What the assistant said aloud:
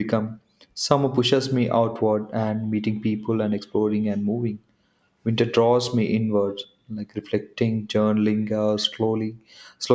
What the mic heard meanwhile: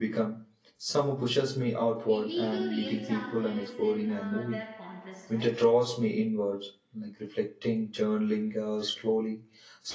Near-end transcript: maybe the real charm is in uh, their contrast right

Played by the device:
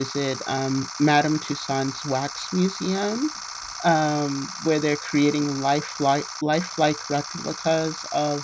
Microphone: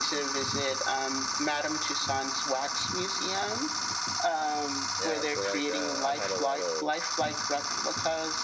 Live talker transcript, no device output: yeah i feel like i, I had a lot of

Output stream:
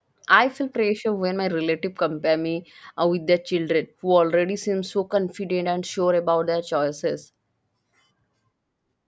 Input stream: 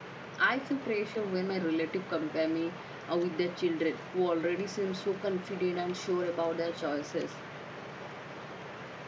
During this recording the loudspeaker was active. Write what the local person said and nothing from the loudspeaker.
none

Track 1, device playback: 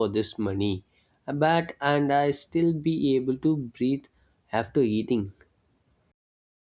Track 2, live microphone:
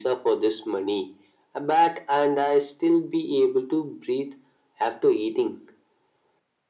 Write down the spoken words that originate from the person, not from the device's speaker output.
none

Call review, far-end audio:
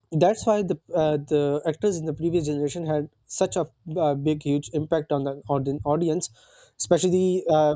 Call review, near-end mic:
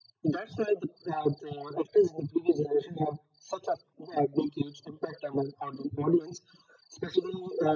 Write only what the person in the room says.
none

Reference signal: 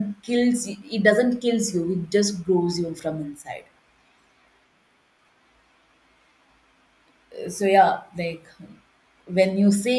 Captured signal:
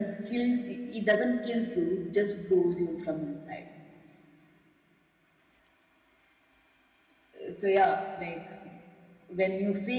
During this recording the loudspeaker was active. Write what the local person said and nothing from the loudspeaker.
none

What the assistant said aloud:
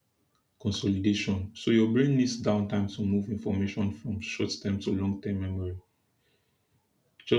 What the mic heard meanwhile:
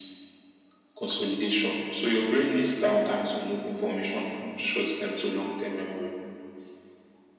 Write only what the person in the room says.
none

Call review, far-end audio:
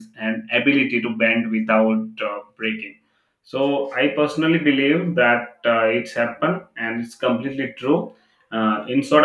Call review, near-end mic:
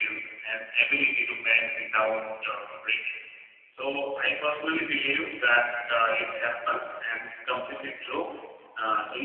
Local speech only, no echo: none

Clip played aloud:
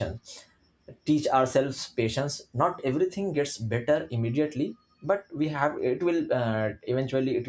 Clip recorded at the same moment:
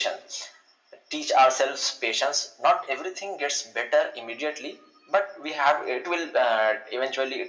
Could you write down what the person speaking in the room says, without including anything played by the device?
none

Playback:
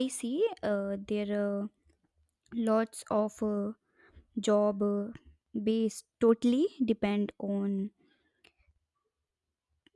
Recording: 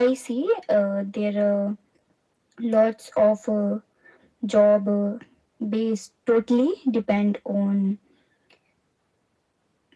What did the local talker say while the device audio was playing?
none

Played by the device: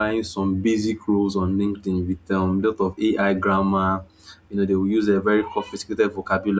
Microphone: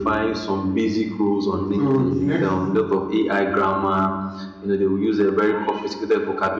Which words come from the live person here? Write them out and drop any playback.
So the next,

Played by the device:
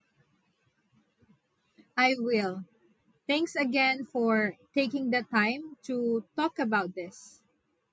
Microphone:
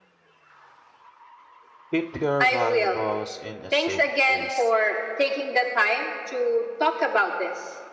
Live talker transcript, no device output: Keep your valuables in a safe place.

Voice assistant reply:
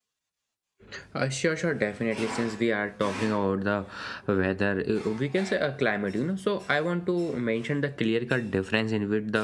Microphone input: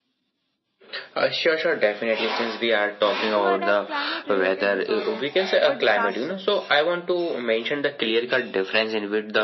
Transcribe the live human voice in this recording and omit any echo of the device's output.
to adapt climate related disorders or disasters.

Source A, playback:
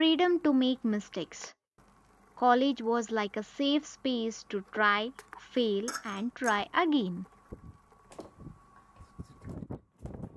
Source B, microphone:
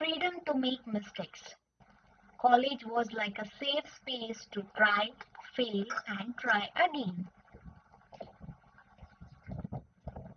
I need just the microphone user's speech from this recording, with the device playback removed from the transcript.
none

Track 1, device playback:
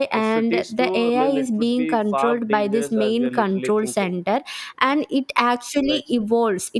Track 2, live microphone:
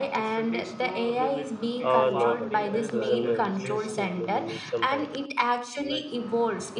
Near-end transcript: Uh, nobody. It was in my wish list to maybe meet sometime.

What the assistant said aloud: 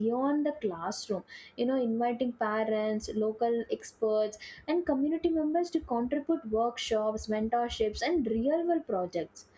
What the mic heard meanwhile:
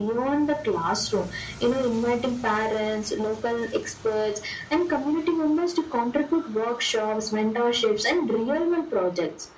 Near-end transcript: none

